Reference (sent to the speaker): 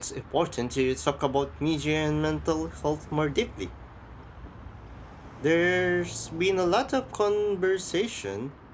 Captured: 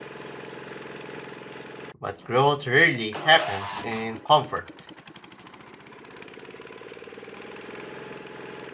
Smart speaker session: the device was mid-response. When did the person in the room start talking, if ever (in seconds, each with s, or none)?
2.0 s